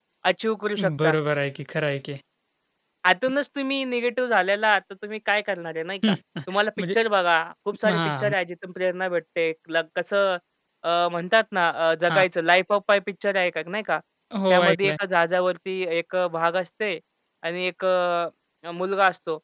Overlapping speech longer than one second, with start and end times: none

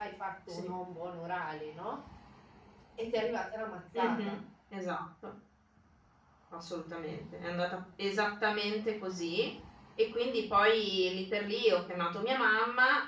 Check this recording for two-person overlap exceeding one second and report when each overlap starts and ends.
none

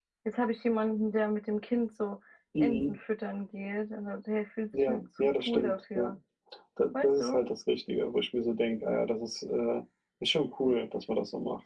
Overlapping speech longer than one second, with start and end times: 4.9-6.1

